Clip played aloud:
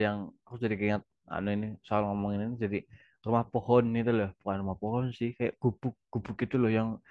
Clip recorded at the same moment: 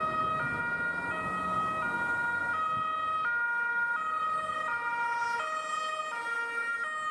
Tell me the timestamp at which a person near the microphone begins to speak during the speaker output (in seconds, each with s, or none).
none